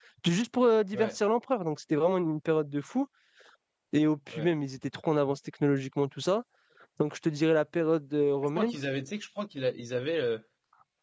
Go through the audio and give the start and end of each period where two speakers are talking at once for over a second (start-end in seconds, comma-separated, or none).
none